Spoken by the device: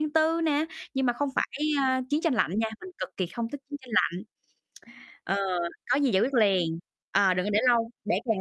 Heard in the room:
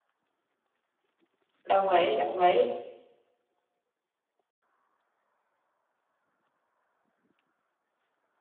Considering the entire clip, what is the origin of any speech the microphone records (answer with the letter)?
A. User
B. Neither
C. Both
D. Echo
A